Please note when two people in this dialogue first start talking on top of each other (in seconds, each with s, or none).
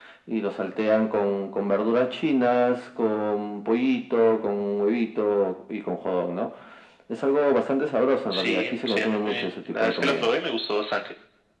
8.3 s